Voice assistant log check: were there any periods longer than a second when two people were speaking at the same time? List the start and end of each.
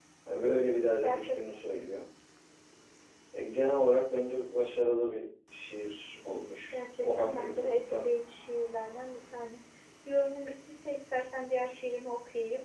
6.7-8.1

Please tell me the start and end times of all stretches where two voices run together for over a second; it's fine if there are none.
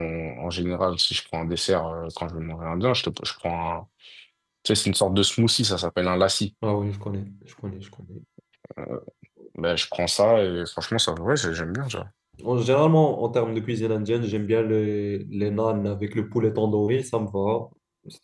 none

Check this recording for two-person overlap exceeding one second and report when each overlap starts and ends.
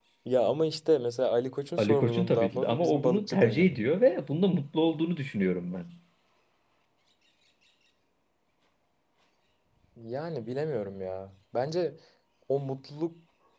1.8-3.9

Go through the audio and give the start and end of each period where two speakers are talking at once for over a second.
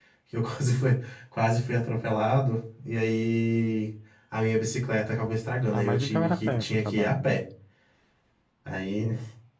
5.7-7.3

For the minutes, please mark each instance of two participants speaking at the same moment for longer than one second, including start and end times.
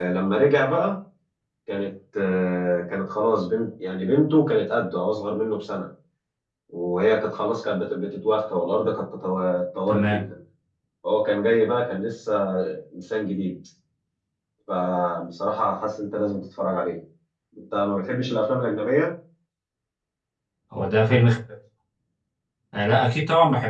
none

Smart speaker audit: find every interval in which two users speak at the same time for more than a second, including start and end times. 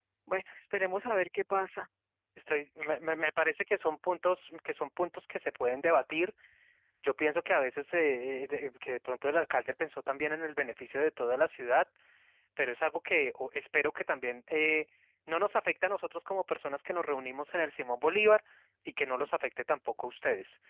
none

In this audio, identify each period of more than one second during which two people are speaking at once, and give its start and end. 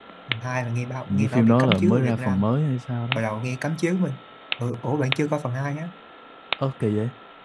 1.1-2.4

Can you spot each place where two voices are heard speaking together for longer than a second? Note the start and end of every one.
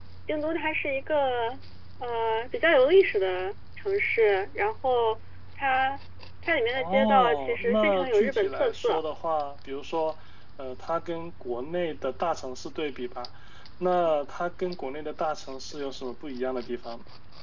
6.8-9.0

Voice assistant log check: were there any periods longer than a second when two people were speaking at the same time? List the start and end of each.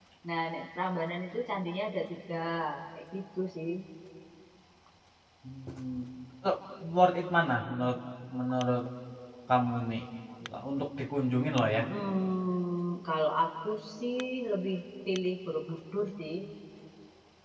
none

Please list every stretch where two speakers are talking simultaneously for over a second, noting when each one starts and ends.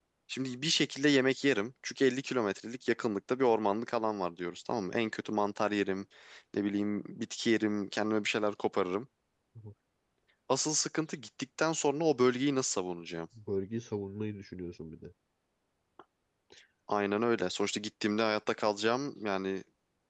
none

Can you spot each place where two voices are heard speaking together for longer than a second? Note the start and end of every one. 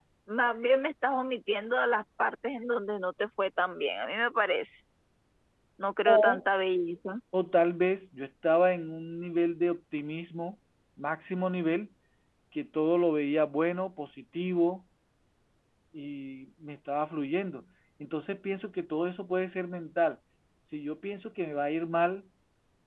none

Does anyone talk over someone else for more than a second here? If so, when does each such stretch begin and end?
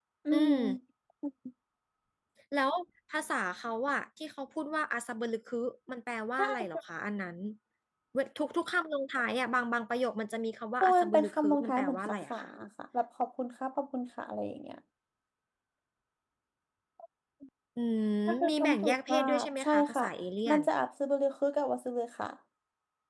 10.8-12.4, 18.5-20.0

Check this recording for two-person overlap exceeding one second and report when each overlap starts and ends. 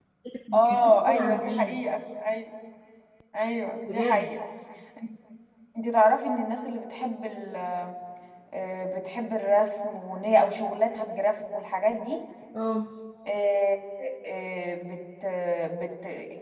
0.5-1.8

